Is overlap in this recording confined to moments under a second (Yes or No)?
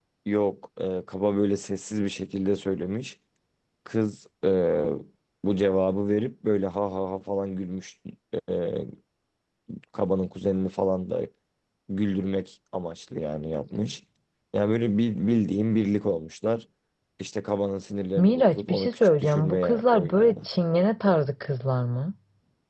No